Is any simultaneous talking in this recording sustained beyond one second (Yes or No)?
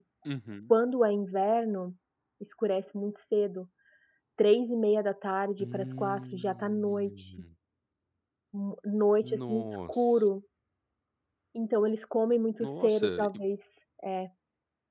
Yes